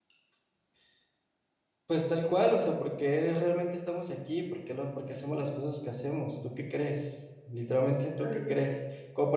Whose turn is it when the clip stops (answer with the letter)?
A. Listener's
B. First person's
B